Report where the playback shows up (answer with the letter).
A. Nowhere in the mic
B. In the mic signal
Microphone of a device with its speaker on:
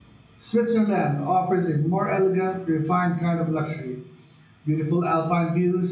A